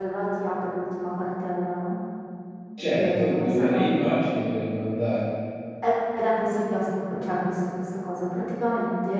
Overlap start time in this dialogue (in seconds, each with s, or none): 2.9 s